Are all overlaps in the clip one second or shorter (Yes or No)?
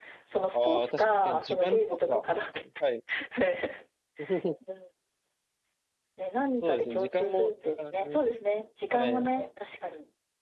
No